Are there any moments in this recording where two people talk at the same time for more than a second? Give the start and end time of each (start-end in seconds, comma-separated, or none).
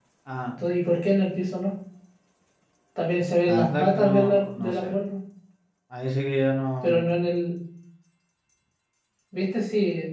3.5-5.0